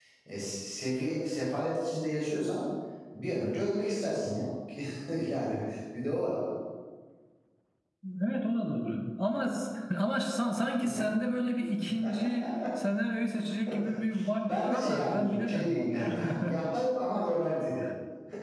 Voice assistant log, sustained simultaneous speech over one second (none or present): present